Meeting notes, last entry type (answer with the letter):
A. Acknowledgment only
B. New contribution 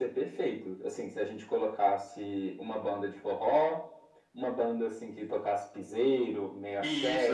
B